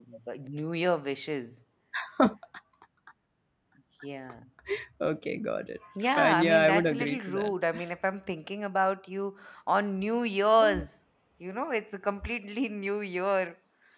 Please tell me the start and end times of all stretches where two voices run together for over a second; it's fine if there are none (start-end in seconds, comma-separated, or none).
6.2-7.5